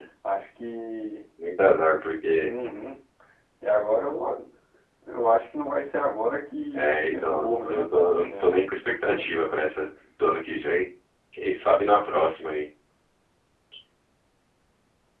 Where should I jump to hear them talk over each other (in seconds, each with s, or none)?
6.7 s